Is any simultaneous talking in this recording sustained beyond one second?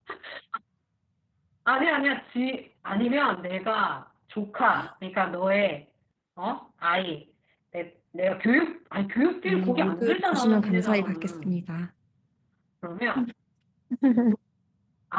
Yes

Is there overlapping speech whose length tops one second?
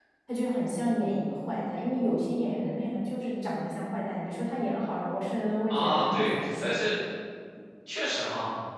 Yes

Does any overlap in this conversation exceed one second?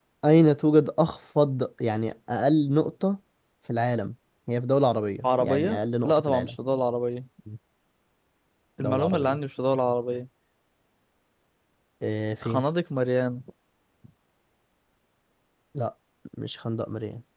Yes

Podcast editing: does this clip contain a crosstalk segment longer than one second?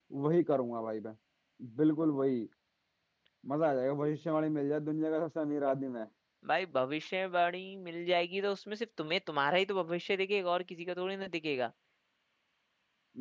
No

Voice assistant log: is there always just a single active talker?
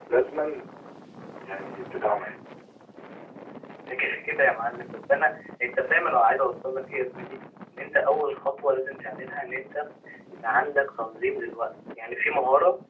Yes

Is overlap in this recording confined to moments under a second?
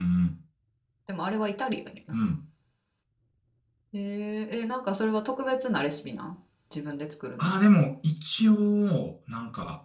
Yes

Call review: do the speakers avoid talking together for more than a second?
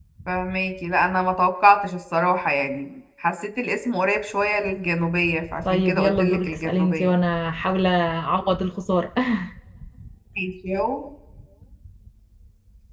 No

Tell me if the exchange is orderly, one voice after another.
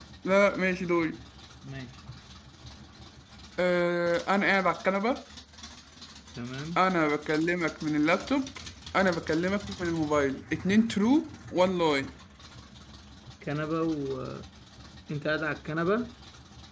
Yes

